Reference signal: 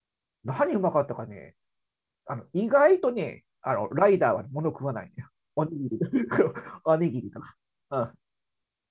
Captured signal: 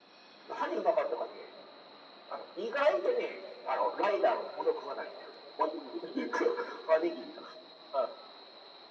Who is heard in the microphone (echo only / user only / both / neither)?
echo only